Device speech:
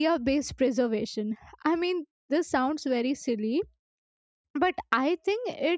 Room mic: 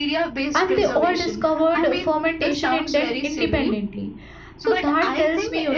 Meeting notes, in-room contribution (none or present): present